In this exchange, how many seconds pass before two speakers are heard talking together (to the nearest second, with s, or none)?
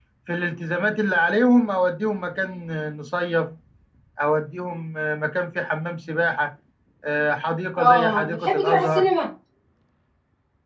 8 s